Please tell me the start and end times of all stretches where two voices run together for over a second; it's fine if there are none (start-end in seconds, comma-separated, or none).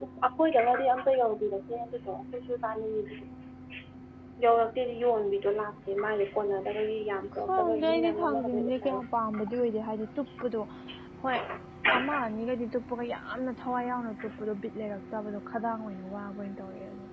7.4-9.0